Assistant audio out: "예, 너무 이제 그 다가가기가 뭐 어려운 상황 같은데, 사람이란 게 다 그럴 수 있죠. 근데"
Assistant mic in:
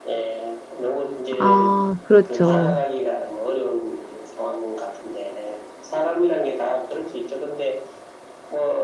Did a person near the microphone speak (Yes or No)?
Yes